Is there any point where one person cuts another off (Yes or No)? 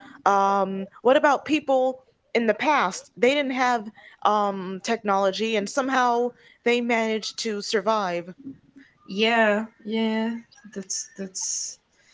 No